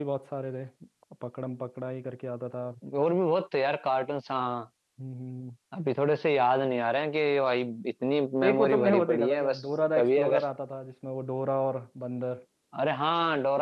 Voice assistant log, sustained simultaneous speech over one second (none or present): present